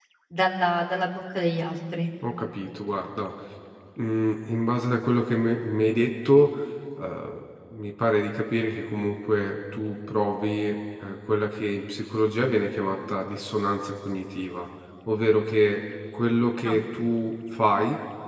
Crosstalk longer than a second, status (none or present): none